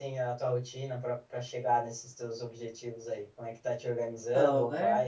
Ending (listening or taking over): listening